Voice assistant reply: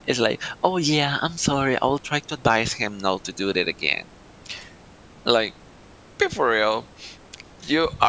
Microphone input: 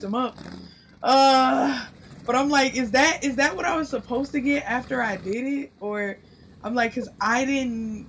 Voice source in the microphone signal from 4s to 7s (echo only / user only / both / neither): user only